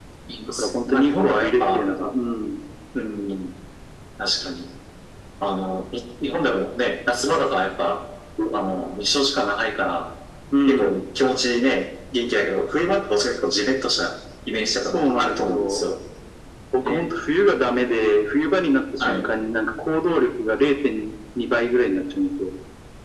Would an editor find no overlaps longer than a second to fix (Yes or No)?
No